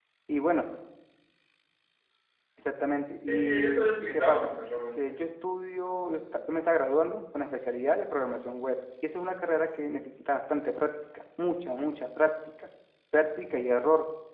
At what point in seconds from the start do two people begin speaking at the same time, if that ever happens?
3.3 s

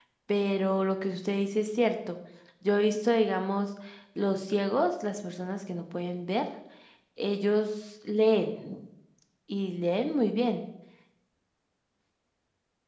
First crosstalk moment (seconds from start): none

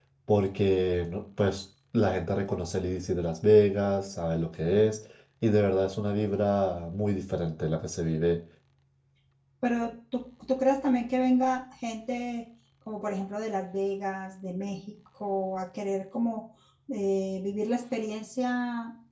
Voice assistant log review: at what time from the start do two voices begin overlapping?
none

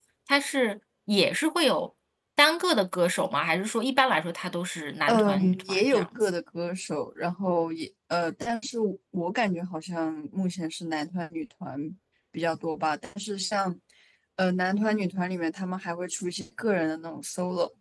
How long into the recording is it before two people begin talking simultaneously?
5.1 s

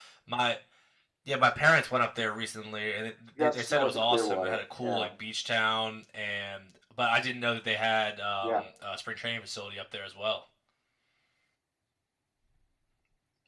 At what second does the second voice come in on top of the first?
3.4 s

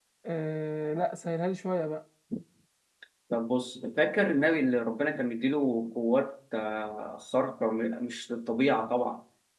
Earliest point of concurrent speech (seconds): none

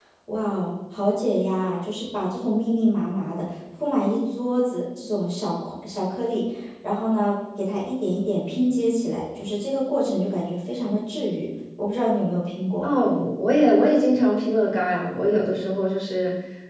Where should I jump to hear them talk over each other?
none

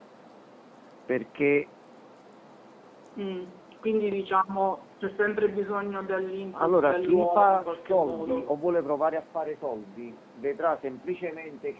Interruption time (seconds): 6.5 s

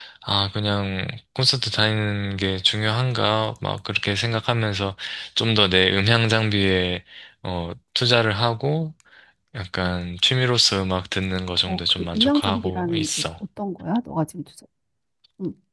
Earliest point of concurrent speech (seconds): 11.7 s

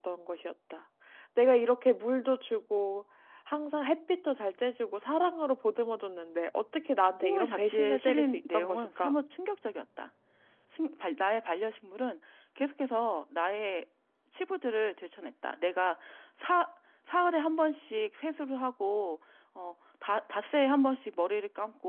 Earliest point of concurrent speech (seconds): 7.2 s

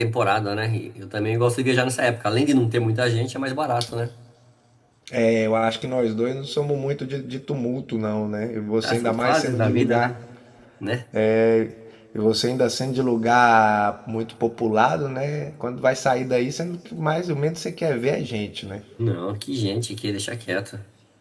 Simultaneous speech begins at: 8.8 s

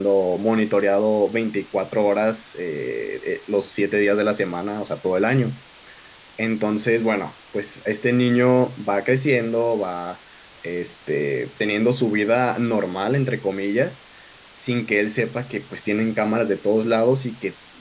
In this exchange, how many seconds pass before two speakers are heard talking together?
none

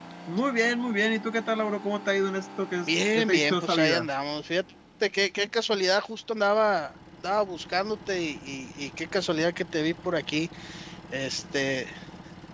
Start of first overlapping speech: 2.9 s

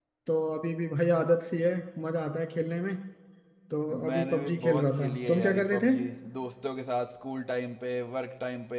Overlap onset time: 4.1 s

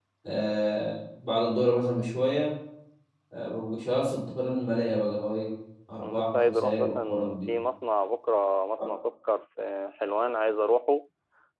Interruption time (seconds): 6.0 s

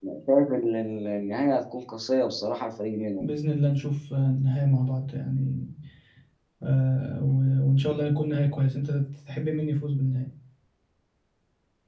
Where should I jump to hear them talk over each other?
none

